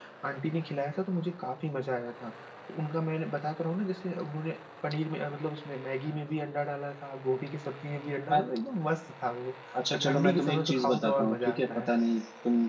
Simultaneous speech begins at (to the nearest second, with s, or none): 10 s